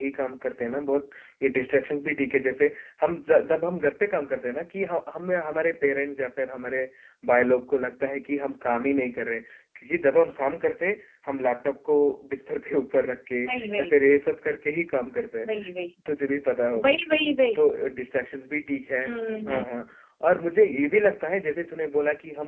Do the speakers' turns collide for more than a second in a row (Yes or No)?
No